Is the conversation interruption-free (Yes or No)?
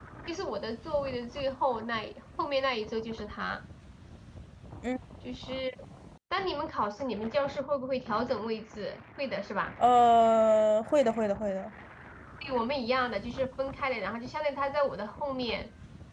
Yes